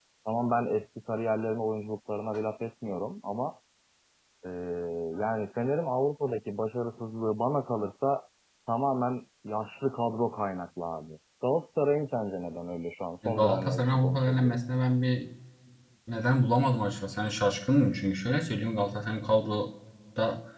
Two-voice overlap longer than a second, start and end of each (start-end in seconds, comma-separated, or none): 13.2-14.6